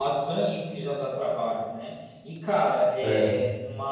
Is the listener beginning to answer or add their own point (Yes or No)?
No